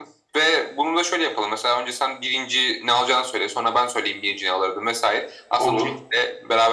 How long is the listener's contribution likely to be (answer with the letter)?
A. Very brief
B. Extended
A